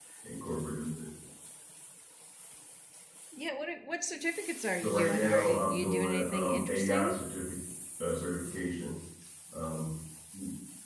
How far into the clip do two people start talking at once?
4.8 s

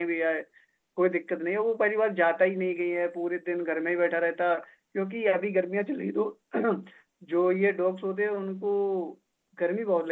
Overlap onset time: none

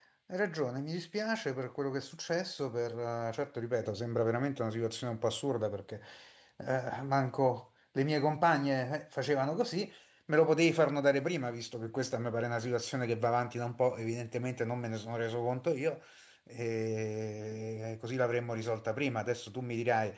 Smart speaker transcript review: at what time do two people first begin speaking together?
none

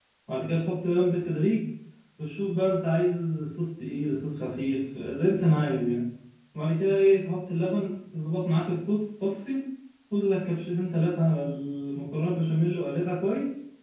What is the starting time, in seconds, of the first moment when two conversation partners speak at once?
none

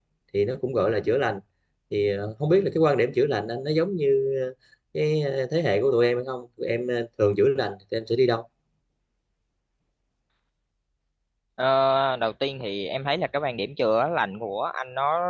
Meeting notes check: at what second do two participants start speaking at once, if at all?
none

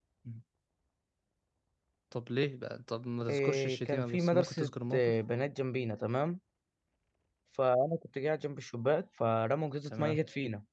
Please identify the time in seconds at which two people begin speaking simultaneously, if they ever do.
3.3 s

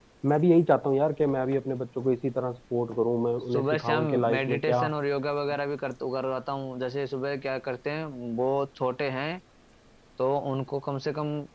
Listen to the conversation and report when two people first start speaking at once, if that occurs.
3.5 s

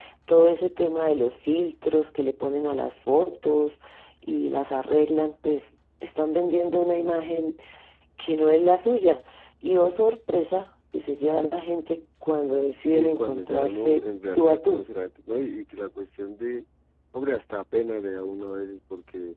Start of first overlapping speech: 12.8 s

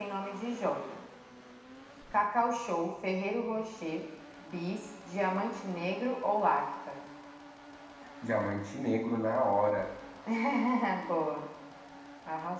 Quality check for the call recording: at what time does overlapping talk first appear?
none

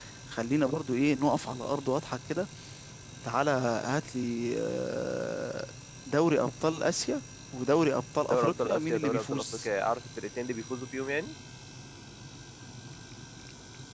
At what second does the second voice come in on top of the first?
8.2 s

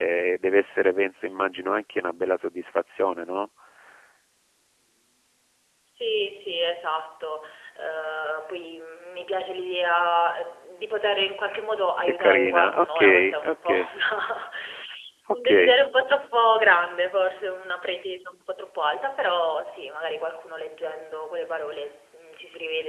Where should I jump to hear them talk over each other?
12.0 s

